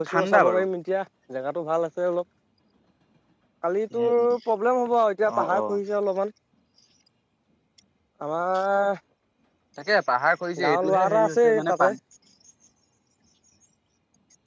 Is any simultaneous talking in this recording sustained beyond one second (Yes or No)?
Yes